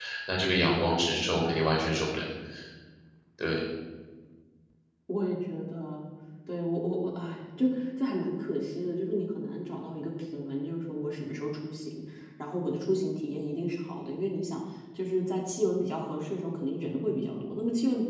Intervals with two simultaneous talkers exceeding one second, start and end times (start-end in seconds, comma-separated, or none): none